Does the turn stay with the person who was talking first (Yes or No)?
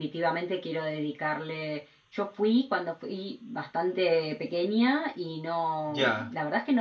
Yes